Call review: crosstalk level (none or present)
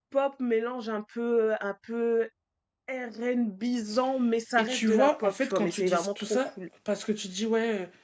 present